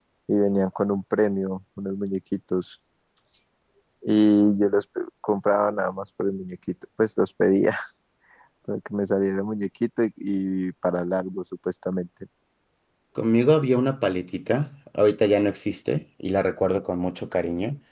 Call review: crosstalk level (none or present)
none